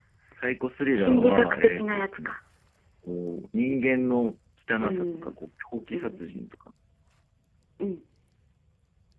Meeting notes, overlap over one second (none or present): present